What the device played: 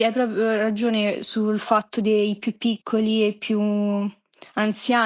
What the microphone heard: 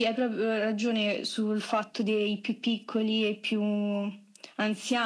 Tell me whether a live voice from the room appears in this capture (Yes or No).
No